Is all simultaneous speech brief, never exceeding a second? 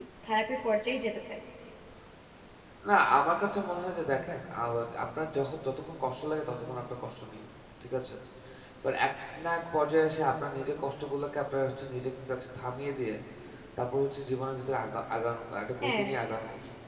Yes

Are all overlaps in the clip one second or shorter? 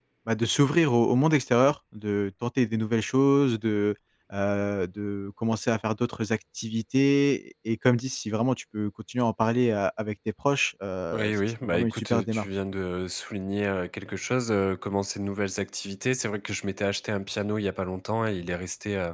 No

